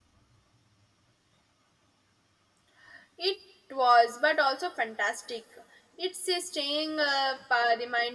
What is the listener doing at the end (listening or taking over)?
listening